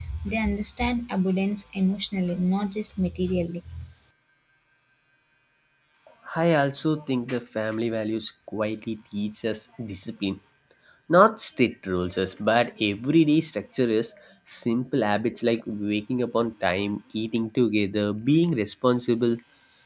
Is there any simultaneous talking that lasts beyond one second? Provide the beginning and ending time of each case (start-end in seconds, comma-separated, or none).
none